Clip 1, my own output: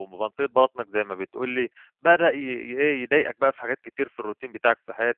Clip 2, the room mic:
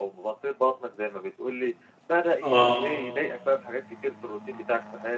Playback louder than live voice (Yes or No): No